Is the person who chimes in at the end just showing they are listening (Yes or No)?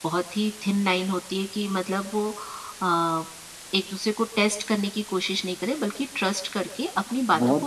No